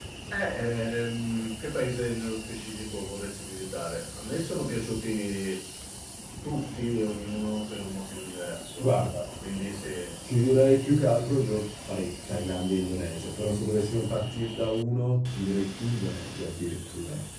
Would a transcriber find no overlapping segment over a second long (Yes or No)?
Yes